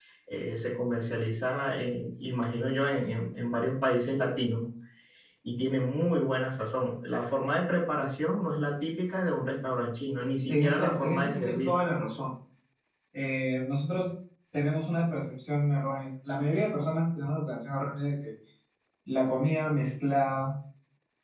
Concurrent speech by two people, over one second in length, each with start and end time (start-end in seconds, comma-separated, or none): 10.5-11.7